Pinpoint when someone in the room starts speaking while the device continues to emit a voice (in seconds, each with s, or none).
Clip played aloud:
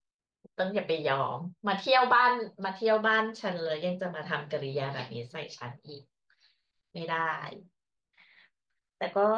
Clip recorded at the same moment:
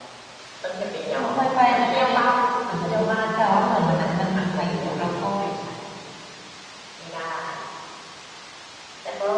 1.2 s